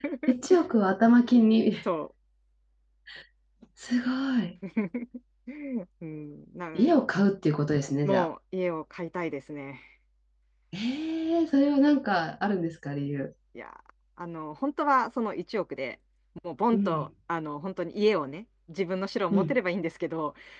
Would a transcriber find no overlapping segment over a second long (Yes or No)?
Yes